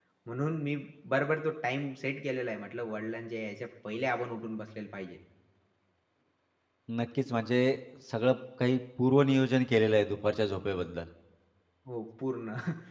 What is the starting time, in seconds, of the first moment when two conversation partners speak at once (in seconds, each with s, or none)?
none